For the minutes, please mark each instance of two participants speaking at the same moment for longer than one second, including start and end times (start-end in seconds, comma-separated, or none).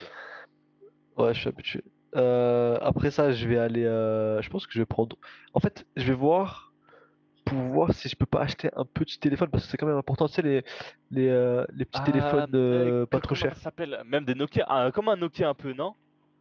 11.9-13.5